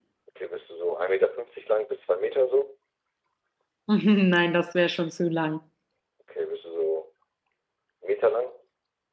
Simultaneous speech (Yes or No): No